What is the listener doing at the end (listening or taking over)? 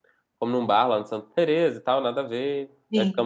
listening